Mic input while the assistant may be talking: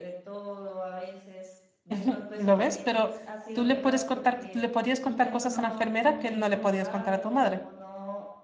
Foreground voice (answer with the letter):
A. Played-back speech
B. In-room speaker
B